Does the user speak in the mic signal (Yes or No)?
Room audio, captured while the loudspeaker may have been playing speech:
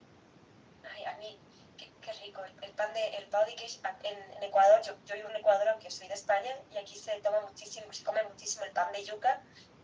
No